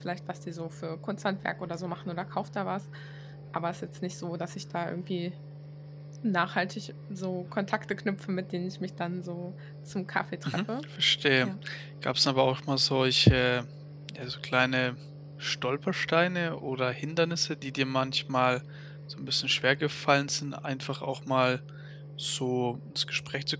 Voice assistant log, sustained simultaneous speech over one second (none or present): none